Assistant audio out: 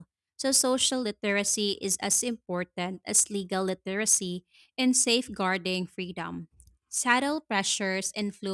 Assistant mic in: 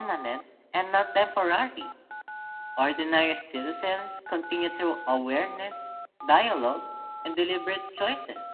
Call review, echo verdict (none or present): none